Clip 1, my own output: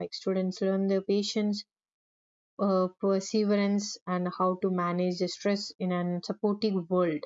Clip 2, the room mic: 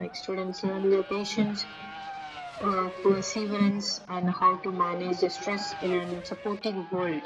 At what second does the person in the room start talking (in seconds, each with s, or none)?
none